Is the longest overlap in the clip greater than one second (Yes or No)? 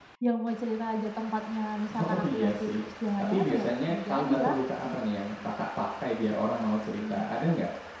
Yes